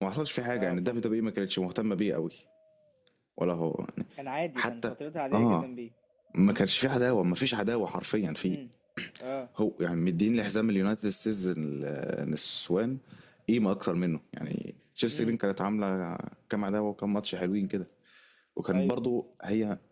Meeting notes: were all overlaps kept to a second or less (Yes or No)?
Yes